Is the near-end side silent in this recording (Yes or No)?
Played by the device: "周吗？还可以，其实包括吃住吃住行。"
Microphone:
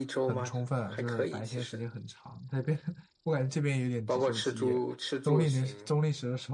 No